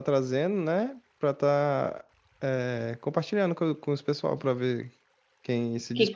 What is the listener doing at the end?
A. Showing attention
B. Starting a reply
B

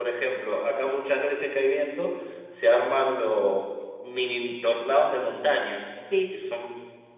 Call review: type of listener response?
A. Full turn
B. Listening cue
B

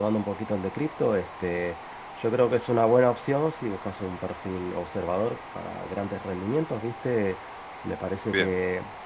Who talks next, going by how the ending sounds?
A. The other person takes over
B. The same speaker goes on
B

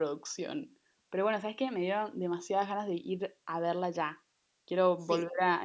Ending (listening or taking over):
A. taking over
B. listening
A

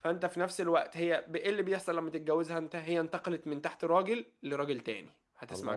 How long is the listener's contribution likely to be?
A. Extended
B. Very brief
B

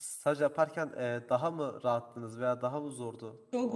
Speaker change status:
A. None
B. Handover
B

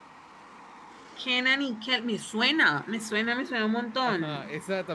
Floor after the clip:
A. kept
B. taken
B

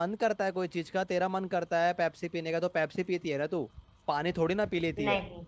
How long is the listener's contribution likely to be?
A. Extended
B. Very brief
B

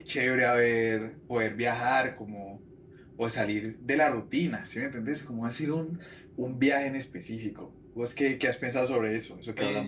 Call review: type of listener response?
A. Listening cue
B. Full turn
B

